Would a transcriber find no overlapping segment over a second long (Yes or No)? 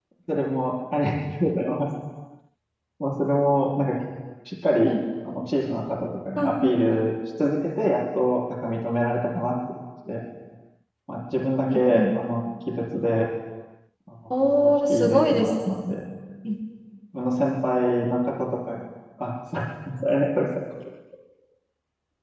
No